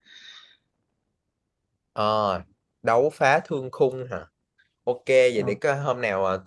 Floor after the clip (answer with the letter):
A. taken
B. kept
B